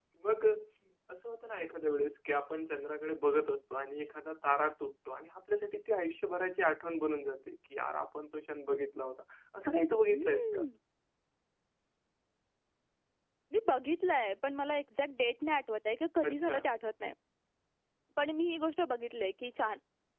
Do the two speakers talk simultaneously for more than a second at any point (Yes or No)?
No